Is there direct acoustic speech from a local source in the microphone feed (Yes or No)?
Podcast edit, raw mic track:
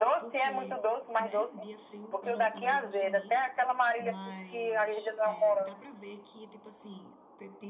Yes